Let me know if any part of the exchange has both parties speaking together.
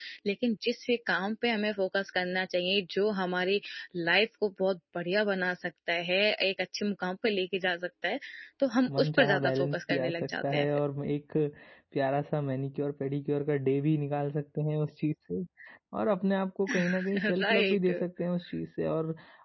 Yes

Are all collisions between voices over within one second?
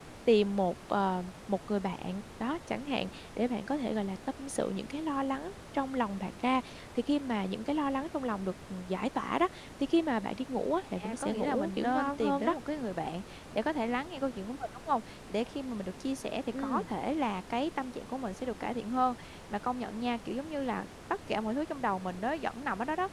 No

